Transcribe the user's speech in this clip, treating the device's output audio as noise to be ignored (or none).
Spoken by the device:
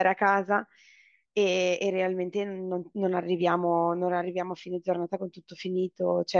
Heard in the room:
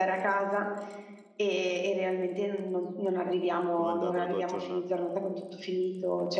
Com'è andata la tua giornata?